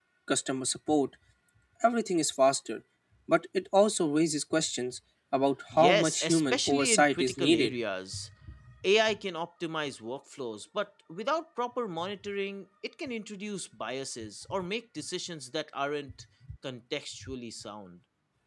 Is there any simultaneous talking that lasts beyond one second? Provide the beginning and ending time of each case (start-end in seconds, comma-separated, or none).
5.7-7.7